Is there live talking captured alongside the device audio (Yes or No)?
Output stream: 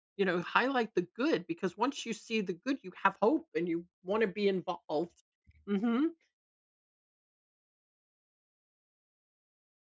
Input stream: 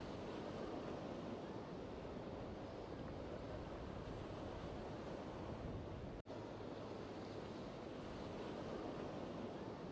No